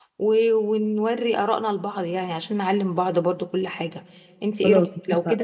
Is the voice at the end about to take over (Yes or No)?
No